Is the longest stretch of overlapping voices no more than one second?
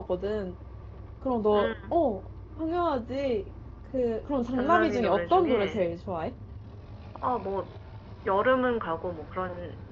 No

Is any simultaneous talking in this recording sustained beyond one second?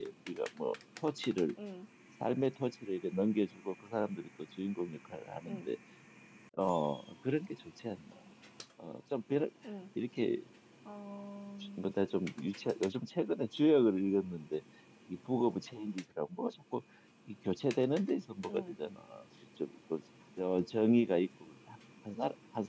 No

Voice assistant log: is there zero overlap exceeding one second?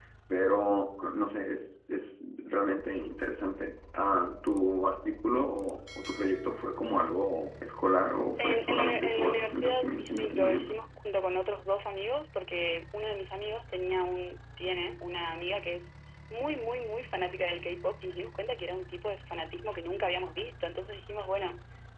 No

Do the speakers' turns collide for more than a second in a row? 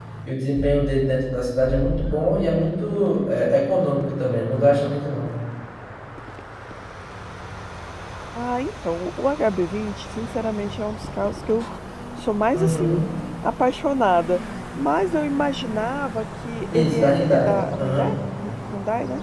Yes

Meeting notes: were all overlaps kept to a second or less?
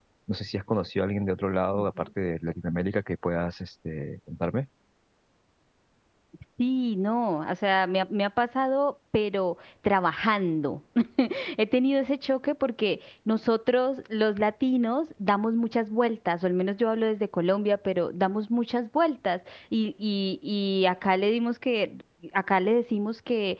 Yes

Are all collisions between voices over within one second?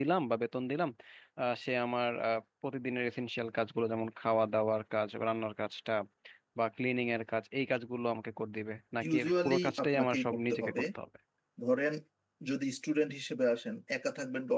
No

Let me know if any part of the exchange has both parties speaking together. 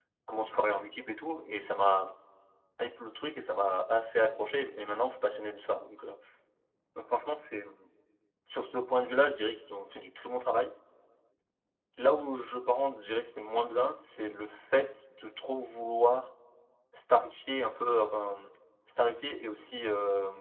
No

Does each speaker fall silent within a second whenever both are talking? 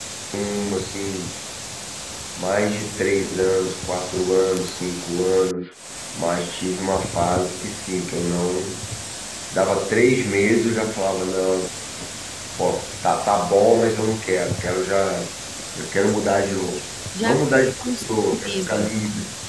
No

